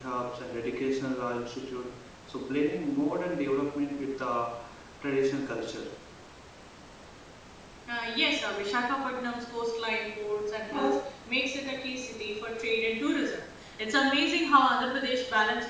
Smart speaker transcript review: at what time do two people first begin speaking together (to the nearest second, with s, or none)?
none